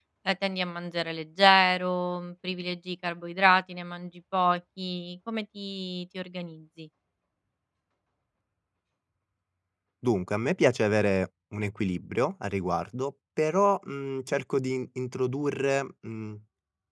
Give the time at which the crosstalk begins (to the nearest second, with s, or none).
none